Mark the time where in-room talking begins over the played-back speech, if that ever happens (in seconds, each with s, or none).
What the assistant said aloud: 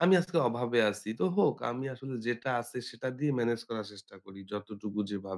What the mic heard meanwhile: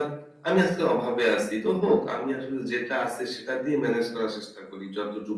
none